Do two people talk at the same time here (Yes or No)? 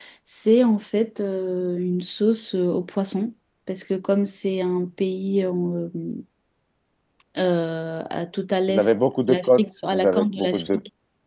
Yes